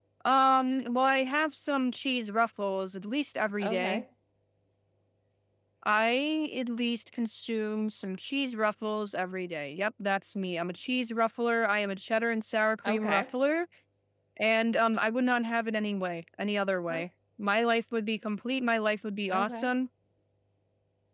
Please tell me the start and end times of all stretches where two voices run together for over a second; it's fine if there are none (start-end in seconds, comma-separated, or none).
none